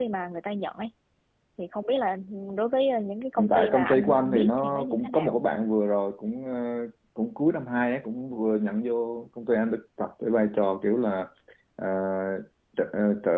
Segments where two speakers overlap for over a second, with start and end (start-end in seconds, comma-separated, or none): 3.4-5.4